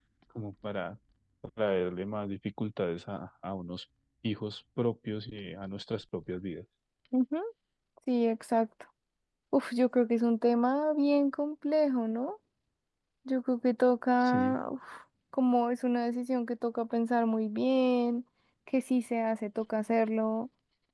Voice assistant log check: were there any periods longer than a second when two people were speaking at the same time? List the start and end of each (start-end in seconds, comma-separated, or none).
none